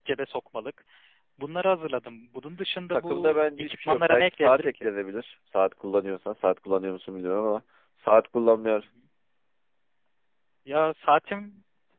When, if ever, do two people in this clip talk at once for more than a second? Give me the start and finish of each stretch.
2.9-4.9

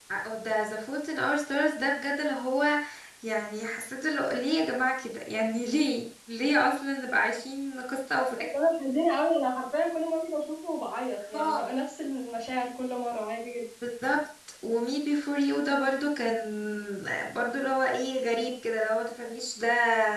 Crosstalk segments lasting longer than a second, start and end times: none

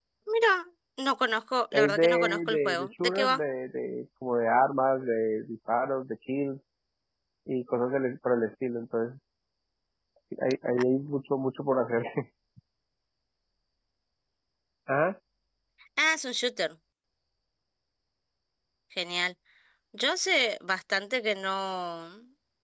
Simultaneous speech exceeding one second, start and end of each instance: 1.7-3.4

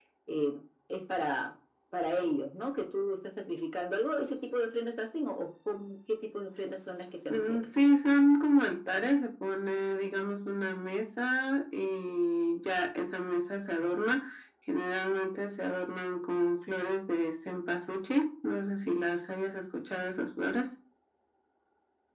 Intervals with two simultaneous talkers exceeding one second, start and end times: none

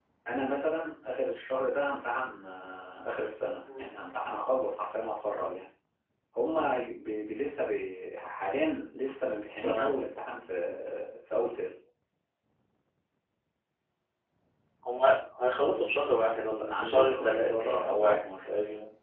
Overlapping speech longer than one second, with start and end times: 16.2-18.3

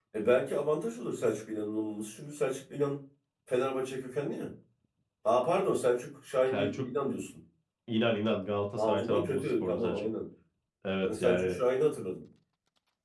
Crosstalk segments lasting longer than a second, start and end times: 8.8-10.1

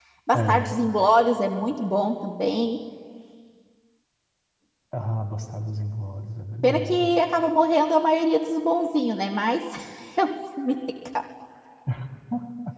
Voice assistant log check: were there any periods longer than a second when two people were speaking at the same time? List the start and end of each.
none

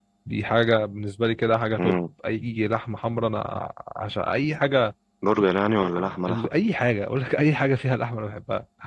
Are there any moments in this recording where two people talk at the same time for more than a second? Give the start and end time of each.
none

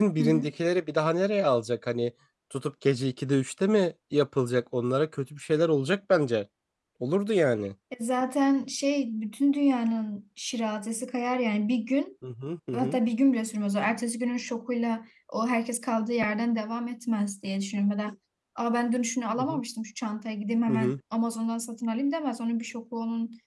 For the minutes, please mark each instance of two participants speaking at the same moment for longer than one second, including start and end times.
none

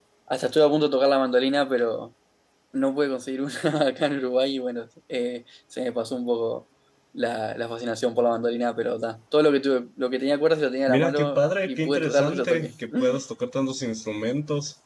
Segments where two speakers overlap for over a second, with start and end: 10.9-12.7

